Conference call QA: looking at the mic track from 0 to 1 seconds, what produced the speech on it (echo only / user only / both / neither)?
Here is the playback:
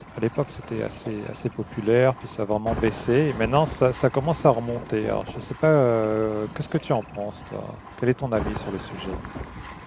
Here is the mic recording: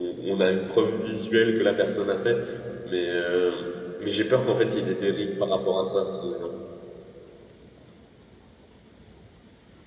user only